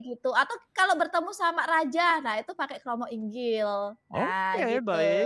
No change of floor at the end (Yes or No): No